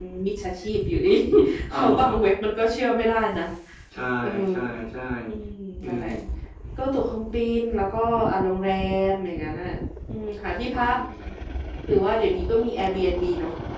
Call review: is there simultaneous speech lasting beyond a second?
No

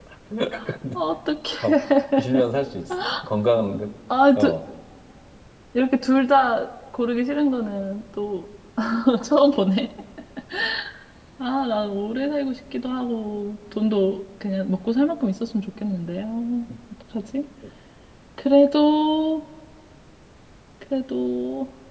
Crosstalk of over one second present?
No

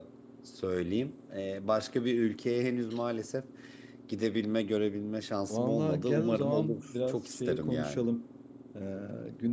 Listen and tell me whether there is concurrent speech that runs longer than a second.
Yes, from 5.5 s

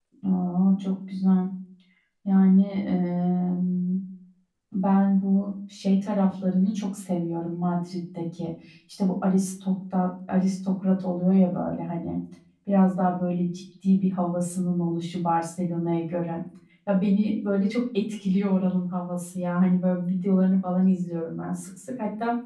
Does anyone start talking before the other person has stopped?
No

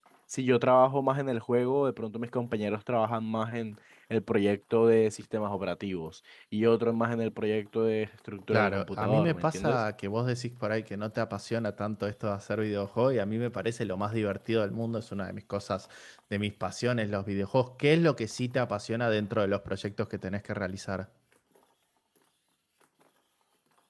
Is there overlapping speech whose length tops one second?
Yes, from 8.5 s

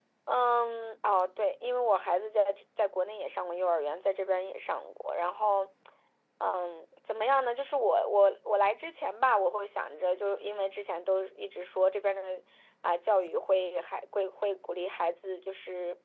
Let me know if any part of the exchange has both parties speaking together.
No

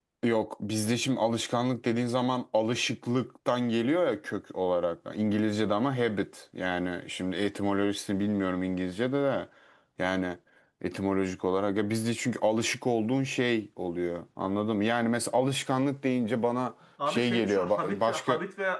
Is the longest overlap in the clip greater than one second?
Yes, from 17.0 s

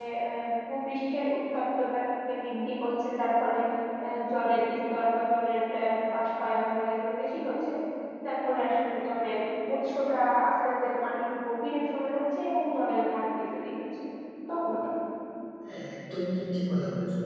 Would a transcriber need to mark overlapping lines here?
No

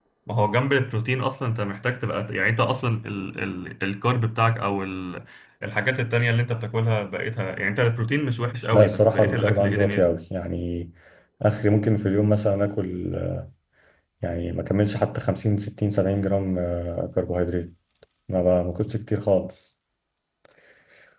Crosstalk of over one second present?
Yes, from 8.7 s

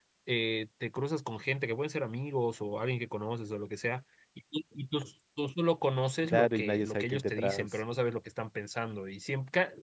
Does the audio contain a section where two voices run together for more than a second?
Yes, from 6.2 s

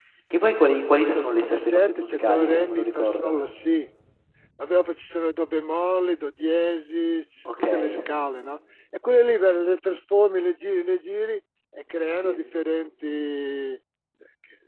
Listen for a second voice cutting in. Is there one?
Yes, from 1.1 s

